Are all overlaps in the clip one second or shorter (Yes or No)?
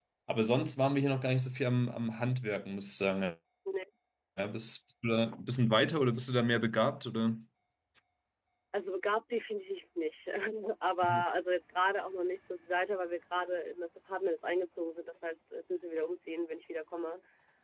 Yes